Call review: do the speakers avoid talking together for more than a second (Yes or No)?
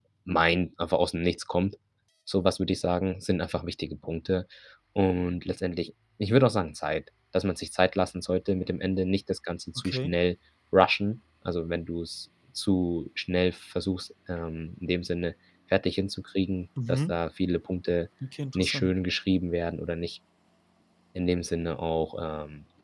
Yes